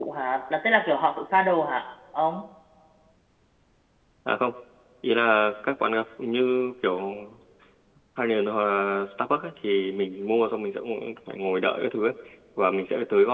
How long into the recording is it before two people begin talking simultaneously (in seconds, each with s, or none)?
none